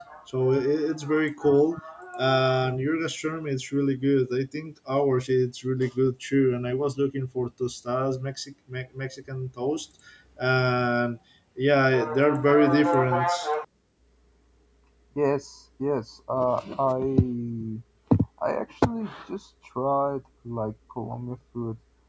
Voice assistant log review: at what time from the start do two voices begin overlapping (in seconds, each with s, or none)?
none